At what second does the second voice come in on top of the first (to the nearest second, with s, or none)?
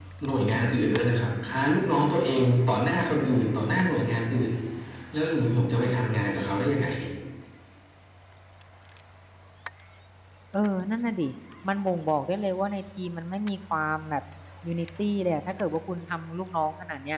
none